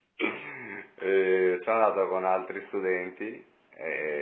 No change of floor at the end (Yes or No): Yes